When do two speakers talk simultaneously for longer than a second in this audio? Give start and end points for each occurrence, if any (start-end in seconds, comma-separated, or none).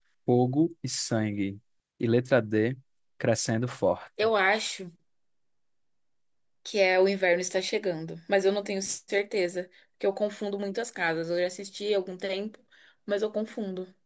none